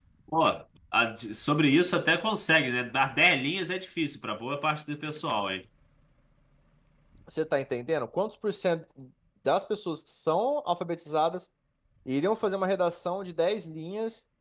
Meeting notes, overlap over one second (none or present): none